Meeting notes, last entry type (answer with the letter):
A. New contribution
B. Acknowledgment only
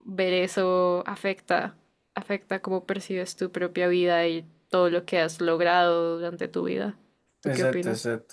A